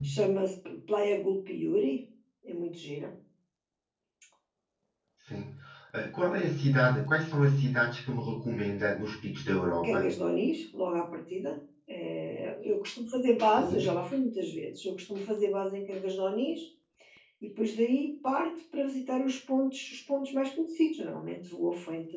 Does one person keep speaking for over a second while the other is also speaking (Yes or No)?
No